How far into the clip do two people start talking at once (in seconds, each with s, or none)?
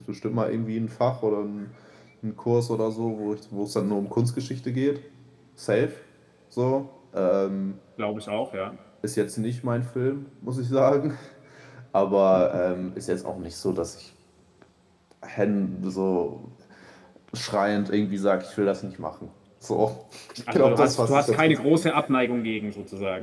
20.5 s